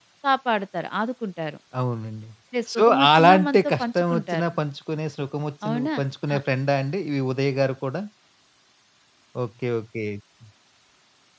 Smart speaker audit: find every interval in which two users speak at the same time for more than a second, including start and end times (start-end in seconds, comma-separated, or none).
2.8-4.5